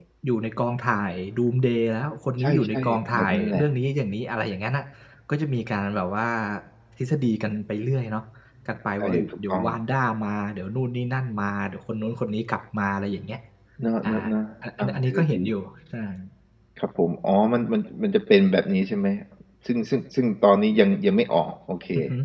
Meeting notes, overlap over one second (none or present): present